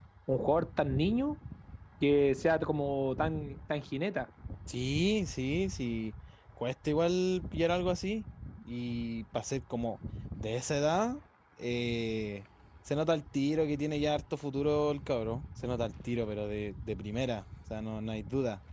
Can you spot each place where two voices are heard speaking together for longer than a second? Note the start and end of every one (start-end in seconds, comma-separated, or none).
none